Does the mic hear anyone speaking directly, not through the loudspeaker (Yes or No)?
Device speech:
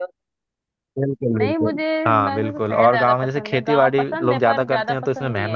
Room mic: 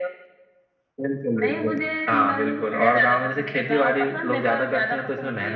No